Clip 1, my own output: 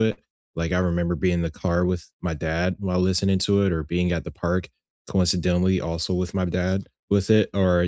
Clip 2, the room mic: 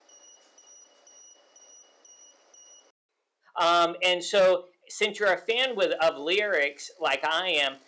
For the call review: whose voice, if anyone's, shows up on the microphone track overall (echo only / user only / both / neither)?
user only